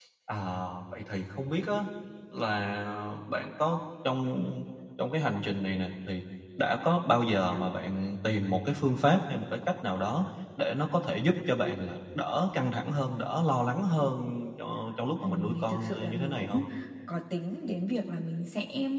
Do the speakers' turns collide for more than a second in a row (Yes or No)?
Yes